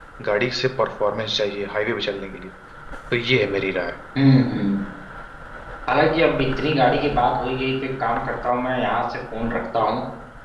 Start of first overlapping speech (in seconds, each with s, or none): none